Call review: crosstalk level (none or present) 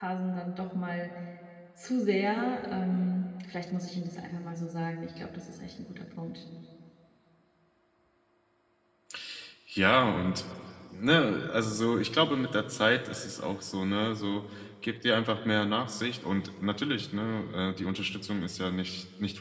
none